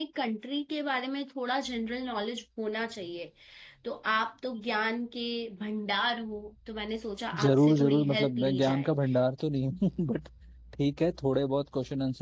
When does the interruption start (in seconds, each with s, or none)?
7.3 s